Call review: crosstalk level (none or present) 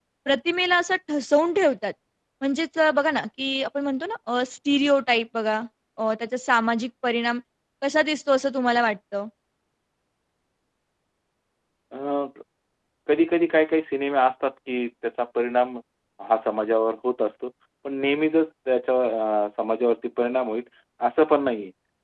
none